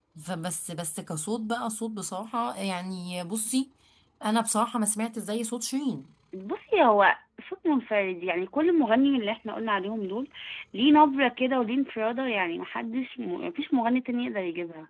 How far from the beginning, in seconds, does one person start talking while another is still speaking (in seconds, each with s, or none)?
none